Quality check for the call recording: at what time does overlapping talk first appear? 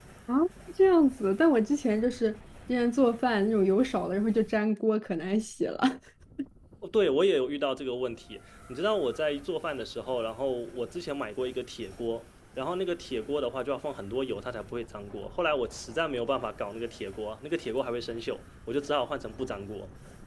none

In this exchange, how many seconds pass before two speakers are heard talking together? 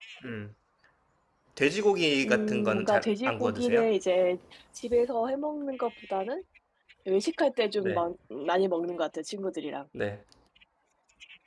2.2 s

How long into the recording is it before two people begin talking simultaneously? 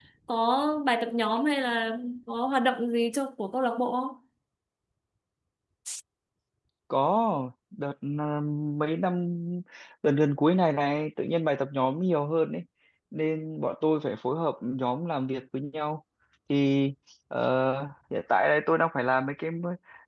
none

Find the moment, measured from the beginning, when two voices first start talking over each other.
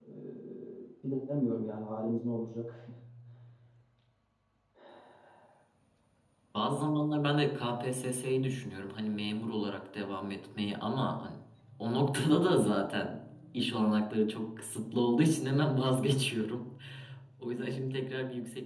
none

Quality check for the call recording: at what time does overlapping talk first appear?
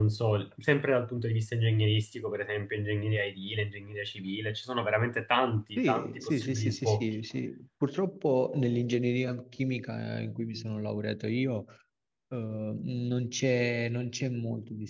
5.8 s

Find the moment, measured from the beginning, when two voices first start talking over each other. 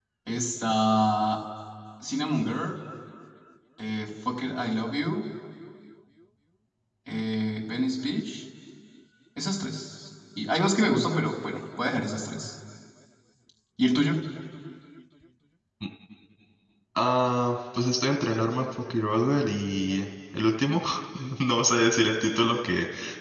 none

